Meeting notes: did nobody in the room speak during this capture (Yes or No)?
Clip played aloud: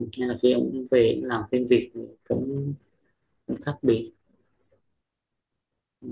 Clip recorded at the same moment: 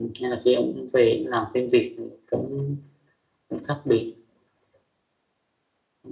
Yes